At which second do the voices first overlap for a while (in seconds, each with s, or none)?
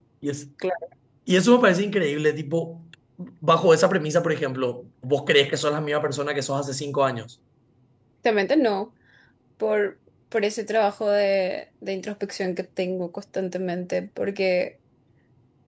none